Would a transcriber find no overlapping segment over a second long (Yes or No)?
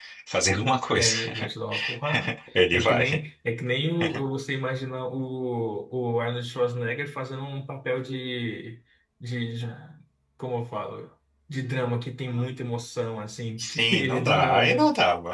No